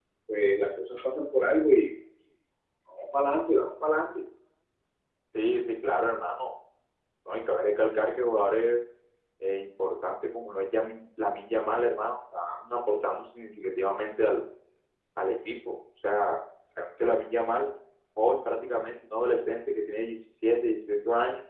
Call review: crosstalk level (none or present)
none